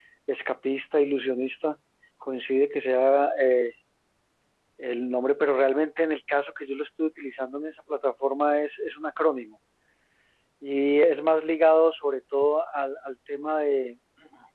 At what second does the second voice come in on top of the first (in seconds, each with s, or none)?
none